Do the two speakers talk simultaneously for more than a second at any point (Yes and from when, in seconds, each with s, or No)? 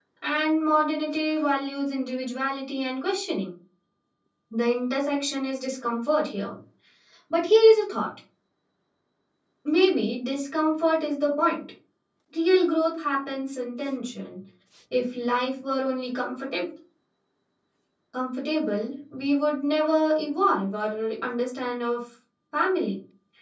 No